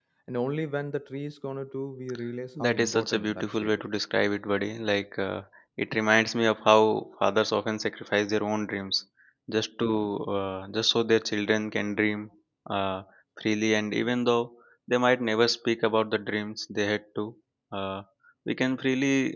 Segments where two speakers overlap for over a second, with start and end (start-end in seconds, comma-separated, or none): 2.6-3.8